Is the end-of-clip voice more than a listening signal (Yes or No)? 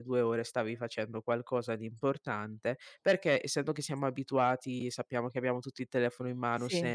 No